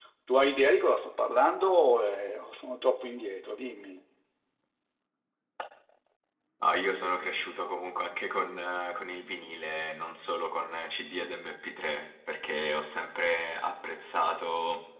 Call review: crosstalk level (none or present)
none